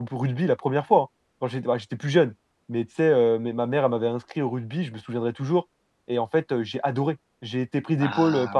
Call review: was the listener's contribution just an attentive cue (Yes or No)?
Yes